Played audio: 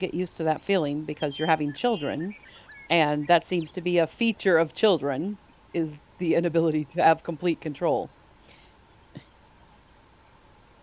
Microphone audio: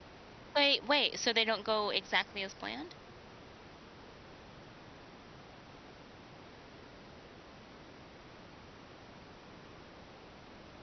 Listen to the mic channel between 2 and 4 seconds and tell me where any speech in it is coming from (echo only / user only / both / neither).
user only